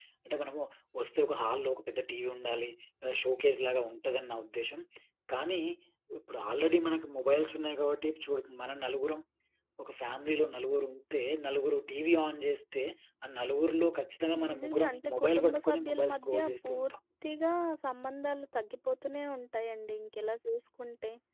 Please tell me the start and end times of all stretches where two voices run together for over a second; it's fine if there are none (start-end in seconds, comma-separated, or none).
14.5-16.9